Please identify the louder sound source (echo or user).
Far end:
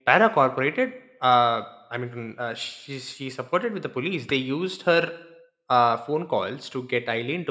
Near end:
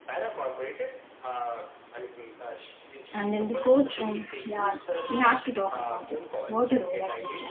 user